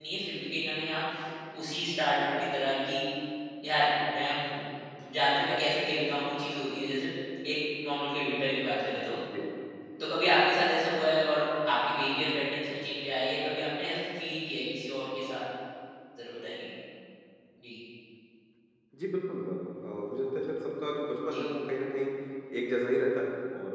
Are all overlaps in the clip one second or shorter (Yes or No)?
Yes